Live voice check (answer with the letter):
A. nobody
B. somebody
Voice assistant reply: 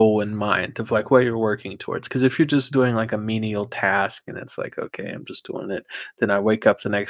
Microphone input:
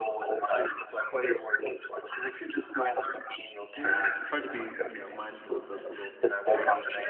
B